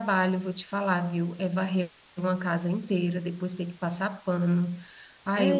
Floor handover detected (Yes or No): Yes